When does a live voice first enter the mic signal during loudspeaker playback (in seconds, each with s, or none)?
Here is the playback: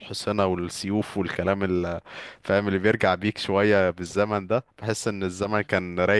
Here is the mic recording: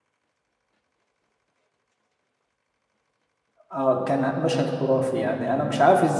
3.7 s